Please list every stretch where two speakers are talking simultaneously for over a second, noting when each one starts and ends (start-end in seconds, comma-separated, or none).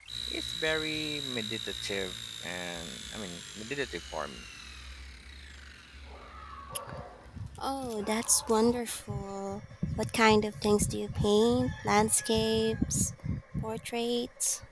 none